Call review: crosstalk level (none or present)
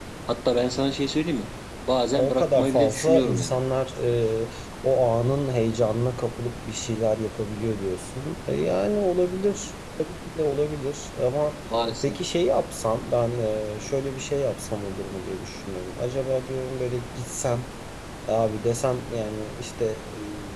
present